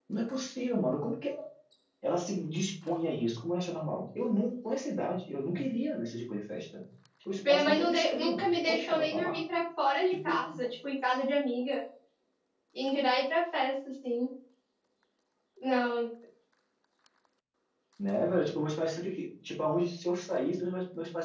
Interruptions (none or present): present